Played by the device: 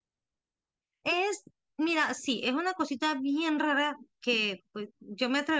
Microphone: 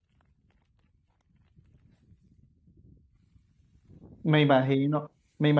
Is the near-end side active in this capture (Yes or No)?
Yes